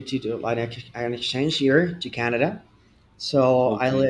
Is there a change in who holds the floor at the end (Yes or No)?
No